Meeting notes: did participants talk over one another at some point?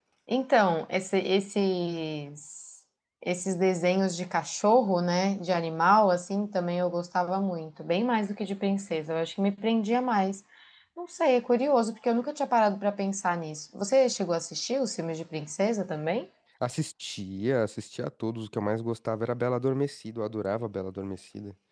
No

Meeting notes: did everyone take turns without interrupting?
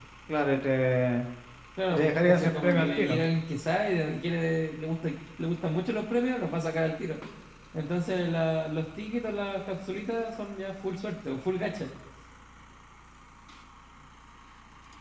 No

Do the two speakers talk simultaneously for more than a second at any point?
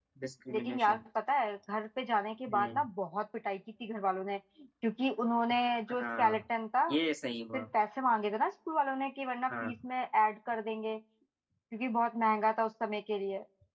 No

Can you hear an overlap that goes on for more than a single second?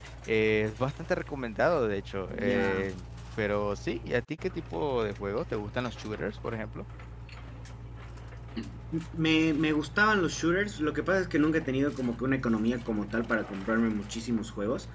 No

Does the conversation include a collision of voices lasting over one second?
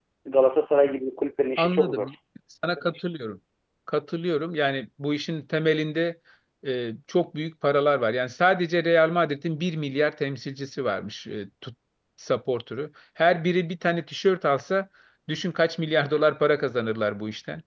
No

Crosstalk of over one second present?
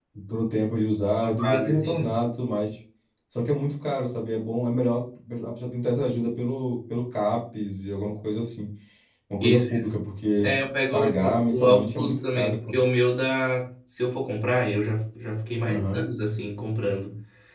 Yes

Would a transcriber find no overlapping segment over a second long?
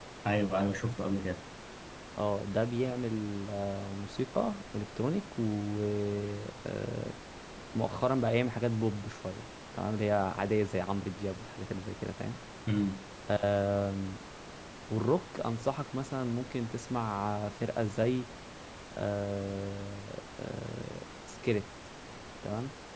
Yes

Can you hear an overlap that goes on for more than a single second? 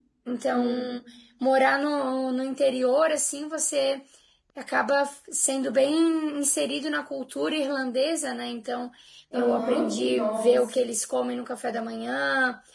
Yes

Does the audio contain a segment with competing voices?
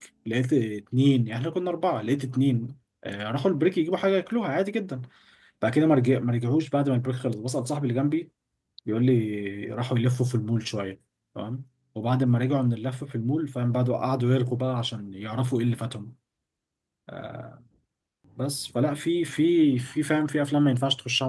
No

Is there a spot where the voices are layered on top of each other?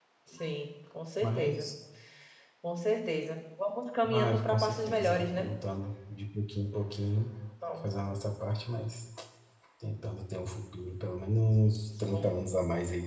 Yes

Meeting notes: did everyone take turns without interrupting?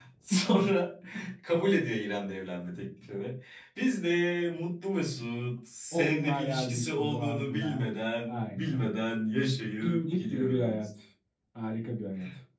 No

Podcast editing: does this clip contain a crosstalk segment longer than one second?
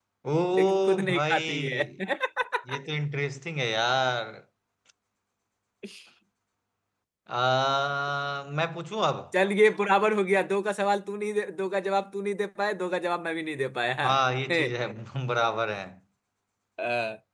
Yes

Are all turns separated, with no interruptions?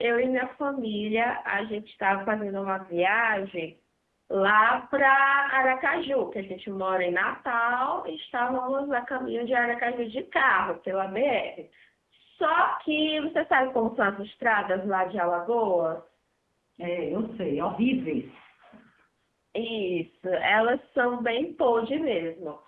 Yes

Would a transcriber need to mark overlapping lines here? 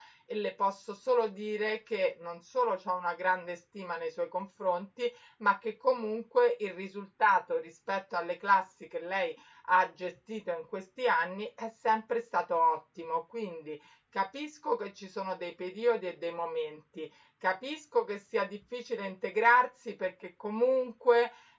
No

